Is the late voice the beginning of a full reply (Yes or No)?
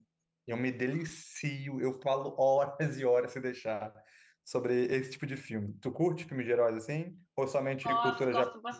Yes